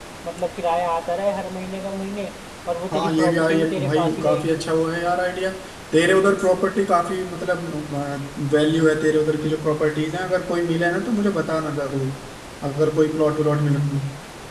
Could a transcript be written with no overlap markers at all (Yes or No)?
No